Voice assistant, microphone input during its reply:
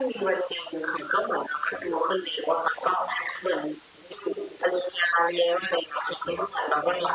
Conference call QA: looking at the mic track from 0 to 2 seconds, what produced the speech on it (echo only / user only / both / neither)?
echo only